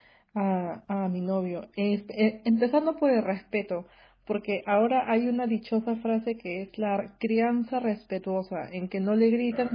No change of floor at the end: Yes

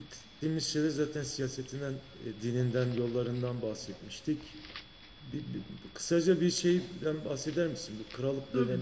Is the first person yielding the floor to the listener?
No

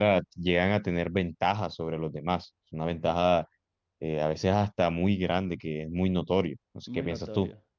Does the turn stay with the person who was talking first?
No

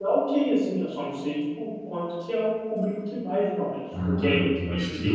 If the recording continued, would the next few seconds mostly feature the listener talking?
Yes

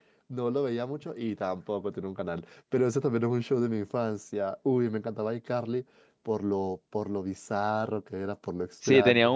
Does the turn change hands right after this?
Yes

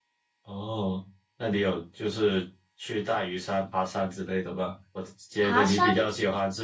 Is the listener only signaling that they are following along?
Yes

